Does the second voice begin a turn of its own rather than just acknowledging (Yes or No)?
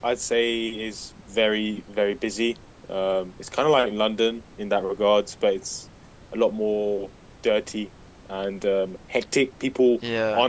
No